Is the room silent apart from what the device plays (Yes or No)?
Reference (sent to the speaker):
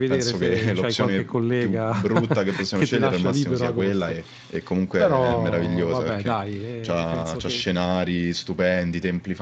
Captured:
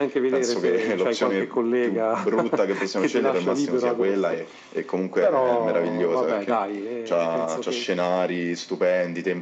Yes